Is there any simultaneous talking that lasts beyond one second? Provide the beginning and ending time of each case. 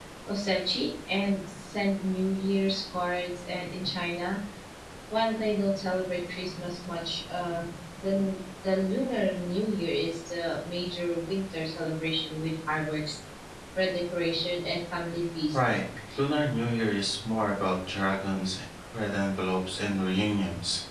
none

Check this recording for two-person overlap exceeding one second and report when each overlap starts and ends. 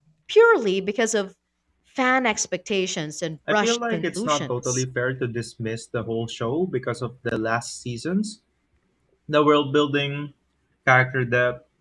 3.5-4.8

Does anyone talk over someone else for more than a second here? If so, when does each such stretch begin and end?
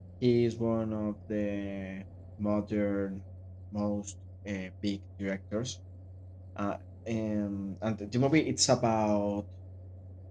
none

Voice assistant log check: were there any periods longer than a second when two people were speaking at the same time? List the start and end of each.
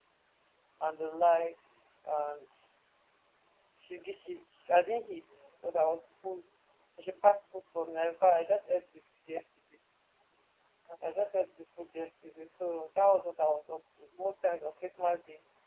none

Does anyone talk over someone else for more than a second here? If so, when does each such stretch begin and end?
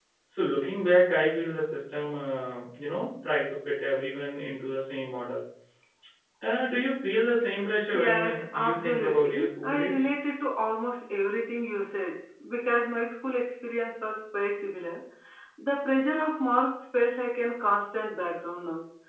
7.9-10.0

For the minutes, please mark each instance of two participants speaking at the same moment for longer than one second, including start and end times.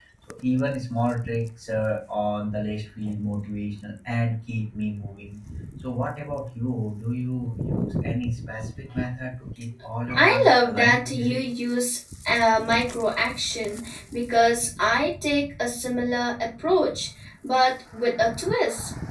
10.2-11.4

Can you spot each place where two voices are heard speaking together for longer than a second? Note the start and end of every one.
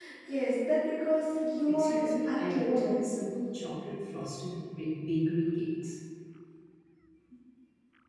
1.7-3.0

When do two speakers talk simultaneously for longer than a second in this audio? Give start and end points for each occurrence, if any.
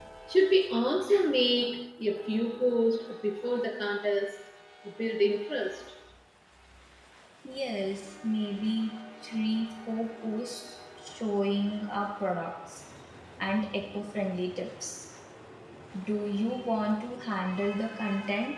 none

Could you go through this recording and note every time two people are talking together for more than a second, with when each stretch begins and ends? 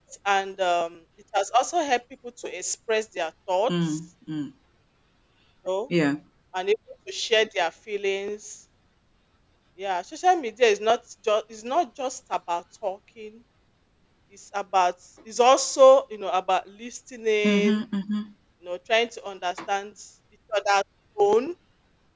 none

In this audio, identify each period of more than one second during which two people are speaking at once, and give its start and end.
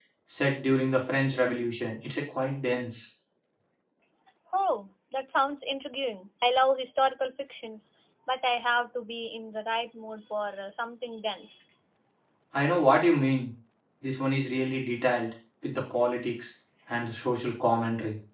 none

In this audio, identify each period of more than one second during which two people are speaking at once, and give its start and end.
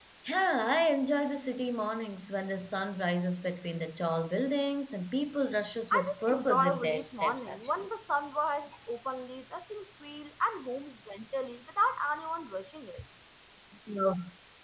5.9-7.9

